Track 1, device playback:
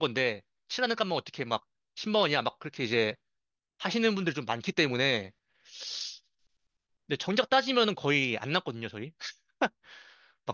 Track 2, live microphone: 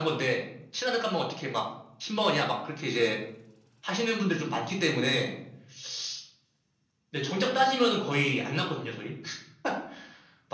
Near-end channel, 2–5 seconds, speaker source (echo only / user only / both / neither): echo only